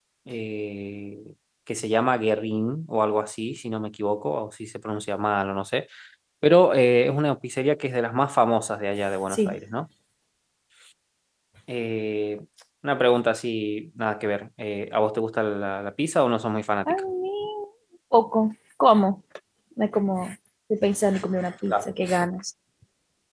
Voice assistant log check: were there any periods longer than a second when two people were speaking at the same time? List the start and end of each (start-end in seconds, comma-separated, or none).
none